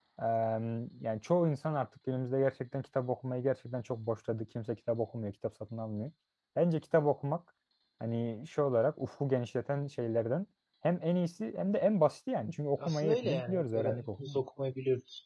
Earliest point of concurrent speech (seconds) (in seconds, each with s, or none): 12.8 s